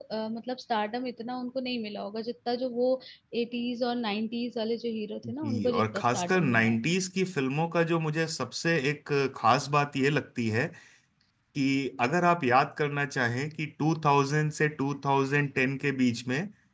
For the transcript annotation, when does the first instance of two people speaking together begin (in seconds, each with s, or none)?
5.2 s